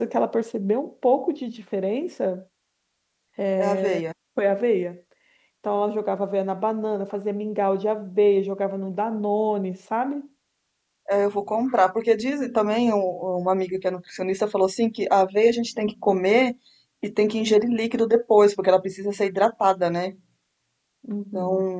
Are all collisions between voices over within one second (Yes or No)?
Yes